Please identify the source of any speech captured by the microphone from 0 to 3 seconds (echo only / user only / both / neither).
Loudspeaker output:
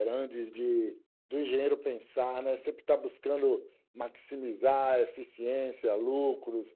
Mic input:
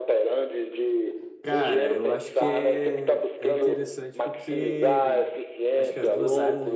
both